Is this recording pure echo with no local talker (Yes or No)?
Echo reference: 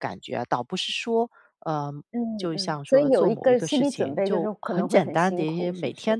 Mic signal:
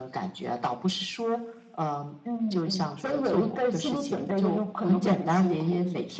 Yes